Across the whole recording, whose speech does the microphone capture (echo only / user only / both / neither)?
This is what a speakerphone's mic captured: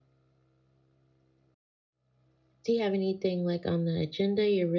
user only